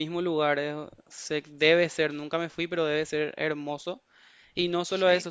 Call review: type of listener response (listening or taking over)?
listening